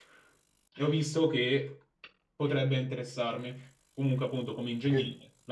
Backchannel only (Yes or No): Yes